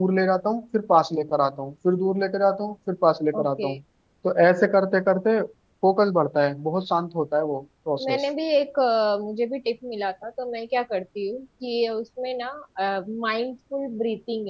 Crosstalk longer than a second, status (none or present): none